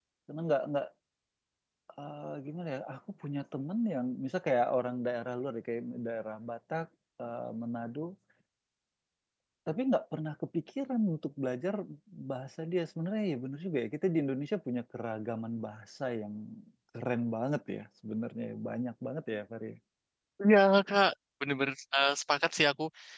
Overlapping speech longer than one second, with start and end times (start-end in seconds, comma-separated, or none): none